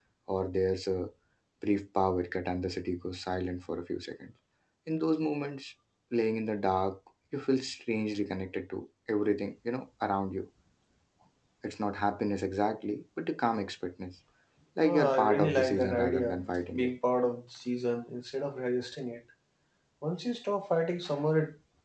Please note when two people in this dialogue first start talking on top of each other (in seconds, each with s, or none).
14.8 s